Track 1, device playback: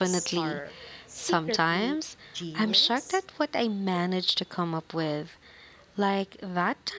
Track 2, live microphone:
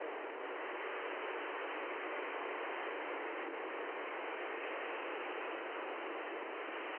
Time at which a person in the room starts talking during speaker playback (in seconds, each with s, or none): none